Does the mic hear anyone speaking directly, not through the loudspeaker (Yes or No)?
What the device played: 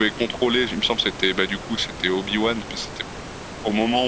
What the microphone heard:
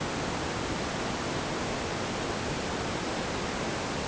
No